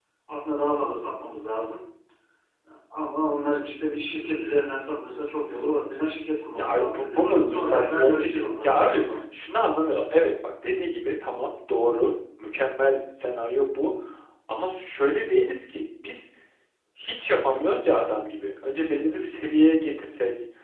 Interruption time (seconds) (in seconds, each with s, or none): 6.6 s